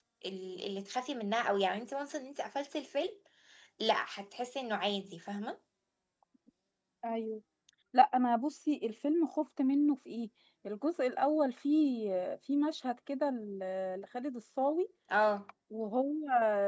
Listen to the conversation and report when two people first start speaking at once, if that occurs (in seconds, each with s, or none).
none